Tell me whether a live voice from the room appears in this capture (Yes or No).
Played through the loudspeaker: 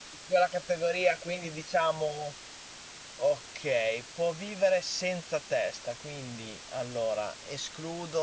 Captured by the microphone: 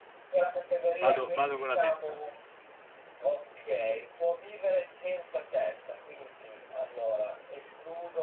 Yes